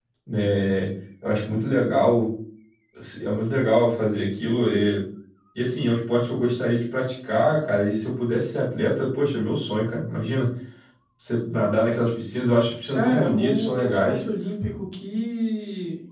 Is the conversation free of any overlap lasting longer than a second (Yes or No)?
No